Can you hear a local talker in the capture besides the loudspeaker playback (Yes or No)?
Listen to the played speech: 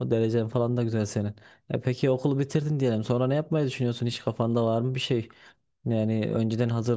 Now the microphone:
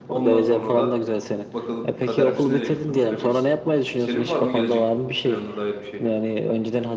Yes